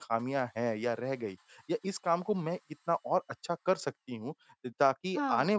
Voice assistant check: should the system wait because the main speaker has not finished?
Yes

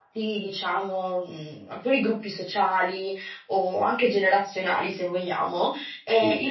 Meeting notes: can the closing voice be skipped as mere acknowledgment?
Yes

